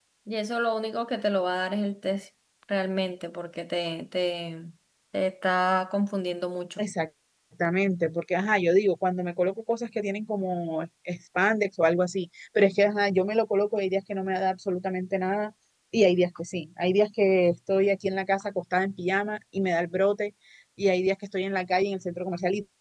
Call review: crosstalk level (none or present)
none